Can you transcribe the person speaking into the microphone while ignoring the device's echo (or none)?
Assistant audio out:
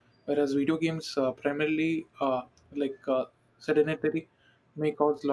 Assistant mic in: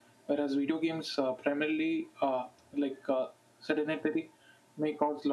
none